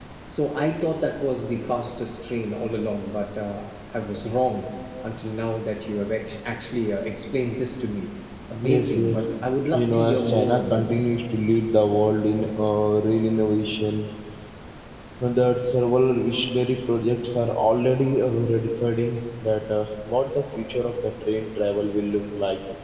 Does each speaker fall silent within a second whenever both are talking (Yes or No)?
No